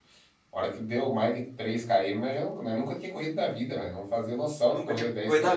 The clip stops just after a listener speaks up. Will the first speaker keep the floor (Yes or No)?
No